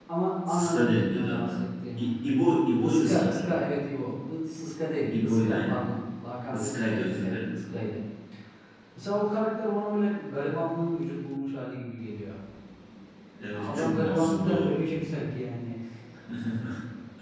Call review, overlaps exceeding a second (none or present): present